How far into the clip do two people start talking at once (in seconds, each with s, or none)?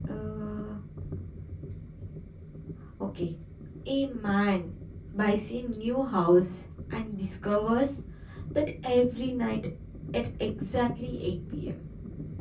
none